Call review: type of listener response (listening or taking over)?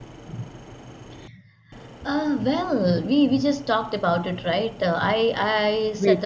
listening